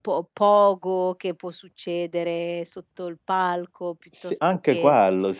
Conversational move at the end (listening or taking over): taking over